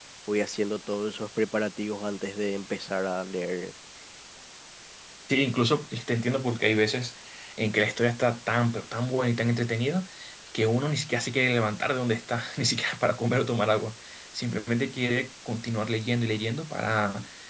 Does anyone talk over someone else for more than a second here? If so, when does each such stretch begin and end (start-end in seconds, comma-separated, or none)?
none